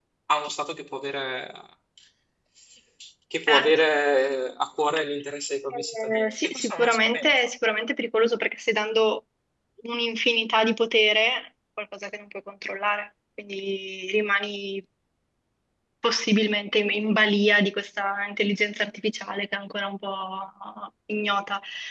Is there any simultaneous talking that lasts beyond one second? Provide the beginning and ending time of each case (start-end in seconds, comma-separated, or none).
5.7-7.3